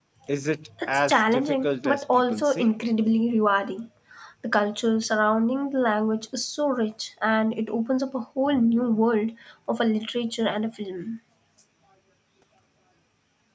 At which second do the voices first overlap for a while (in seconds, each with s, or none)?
0.9 s